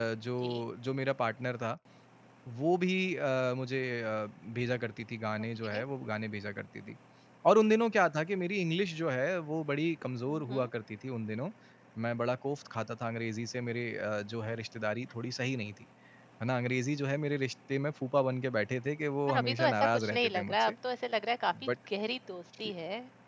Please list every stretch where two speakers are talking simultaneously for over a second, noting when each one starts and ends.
19.3-20.7

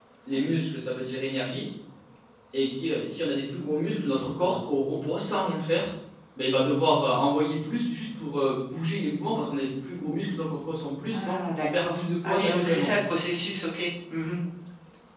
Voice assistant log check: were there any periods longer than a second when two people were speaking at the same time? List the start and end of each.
11.1-12.9

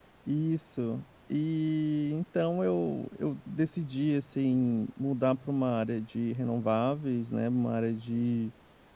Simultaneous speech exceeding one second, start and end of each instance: none

